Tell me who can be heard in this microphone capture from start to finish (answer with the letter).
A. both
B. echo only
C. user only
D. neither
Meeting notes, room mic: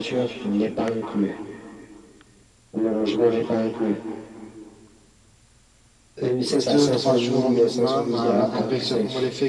A